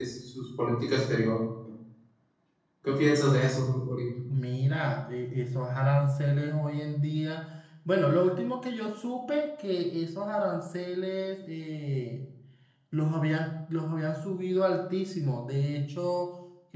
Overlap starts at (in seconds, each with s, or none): none